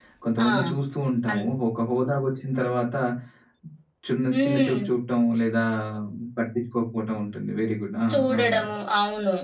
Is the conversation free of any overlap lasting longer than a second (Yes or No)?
Yes